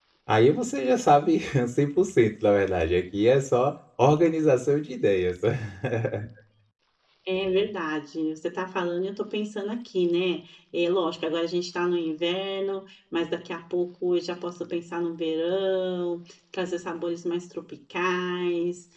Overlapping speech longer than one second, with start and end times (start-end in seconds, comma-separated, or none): none